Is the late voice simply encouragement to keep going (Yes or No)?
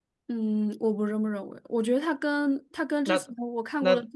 Yes